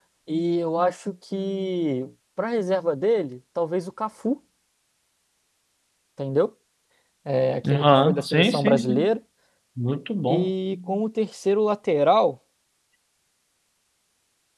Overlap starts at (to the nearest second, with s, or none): 8 s